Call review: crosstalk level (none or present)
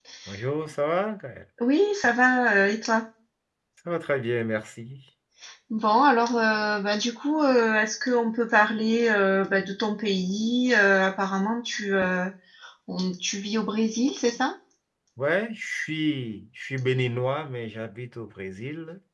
none